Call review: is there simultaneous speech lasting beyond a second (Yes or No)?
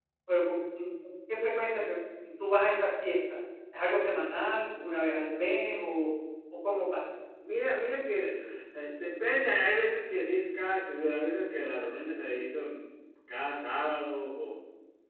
No